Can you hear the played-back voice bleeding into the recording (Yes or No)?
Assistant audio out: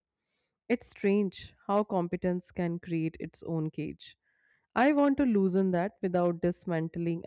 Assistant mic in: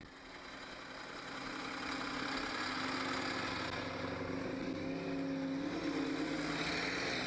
No